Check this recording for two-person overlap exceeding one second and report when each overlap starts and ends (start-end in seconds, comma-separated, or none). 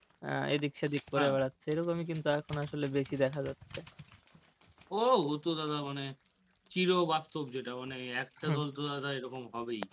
none